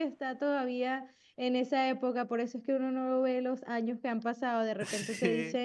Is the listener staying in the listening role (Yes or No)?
Yes